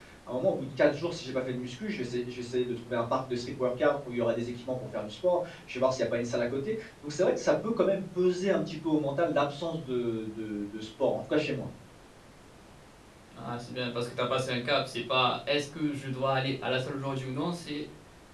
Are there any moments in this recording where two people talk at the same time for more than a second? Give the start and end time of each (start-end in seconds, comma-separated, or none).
none